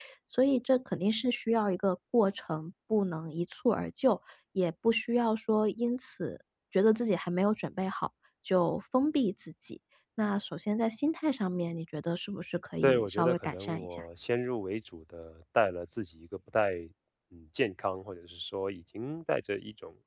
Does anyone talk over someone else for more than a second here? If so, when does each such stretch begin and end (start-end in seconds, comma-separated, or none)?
12.8-14.0